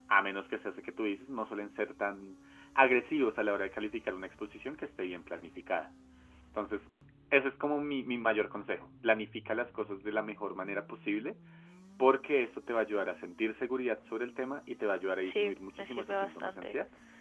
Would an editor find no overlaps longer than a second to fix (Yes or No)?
No